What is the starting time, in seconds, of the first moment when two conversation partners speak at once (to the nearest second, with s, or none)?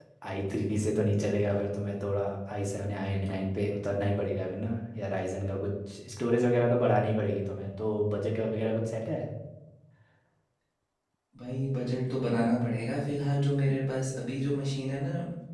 none